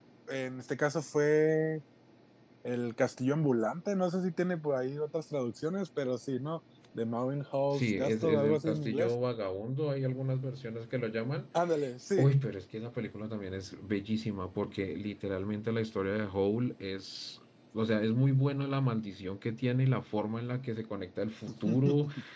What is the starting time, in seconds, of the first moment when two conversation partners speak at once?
8 s

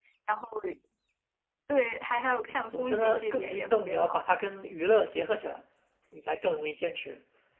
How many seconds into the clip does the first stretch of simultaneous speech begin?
2 s

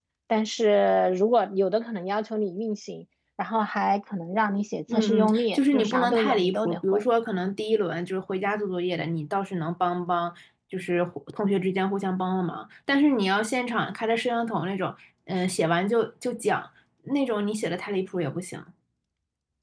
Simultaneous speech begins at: 5 s

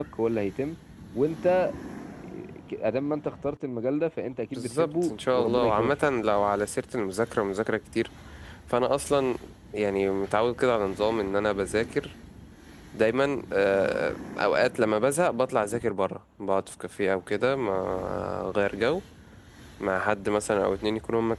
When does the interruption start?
5 s

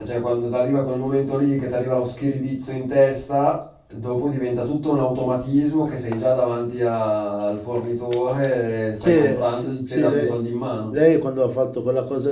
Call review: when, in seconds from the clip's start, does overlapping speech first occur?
9 s

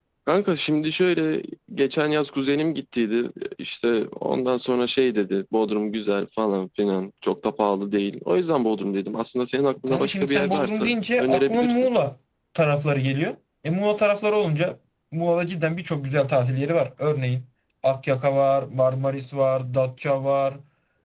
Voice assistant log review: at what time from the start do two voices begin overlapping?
10 s

